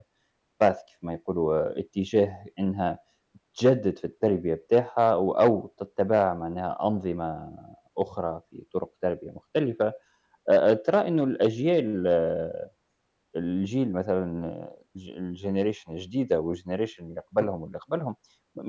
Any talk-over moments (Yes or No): No